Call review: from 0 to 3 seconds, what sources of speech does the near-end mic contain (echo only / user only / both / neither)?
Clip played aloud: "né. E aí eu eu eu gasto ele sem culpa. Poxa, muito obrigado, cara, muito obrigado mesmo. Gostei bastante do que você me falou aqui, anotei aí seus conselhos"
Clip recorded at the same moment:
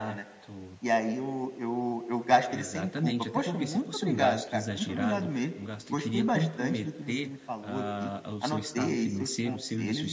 both